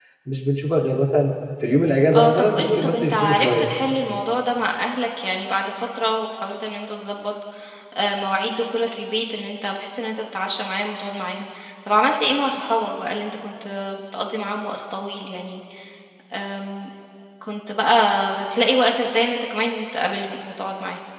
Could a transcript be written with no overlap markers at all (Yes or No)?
No